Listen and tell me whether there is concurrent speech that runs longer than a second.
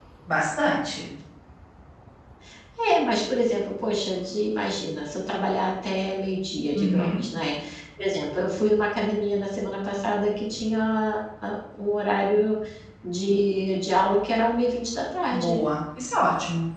No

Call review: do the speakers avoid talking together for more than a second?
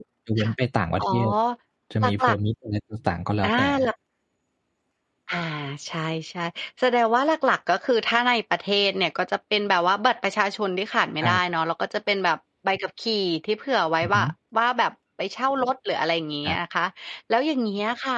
Yes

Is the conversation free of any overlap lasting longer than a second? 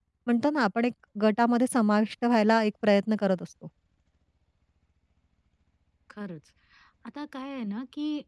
Yes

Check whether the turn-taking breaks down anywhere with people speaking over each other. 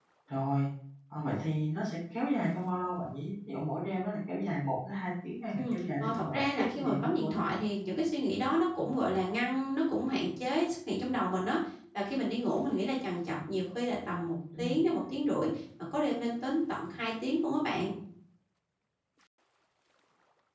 Yes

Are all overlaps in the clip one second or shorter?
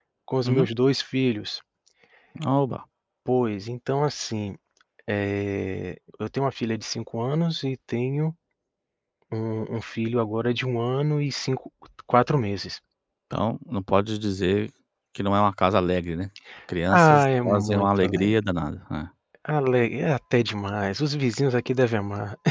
No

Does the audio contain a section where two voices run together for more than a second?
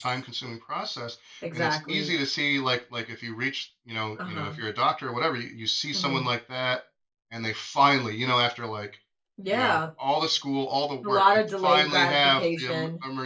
Yes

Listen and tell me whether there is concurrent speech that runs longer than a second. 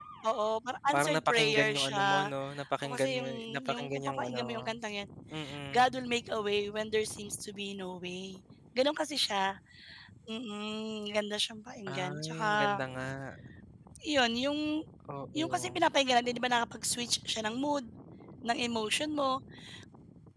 Yes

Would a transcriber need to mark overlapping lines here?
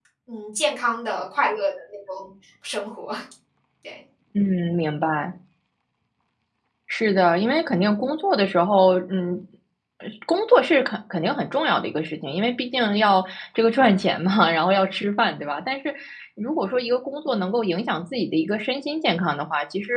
No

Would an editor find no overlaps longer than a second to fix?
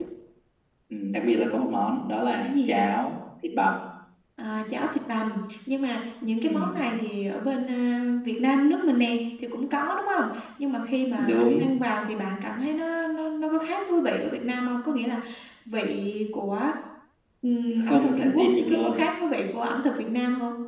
No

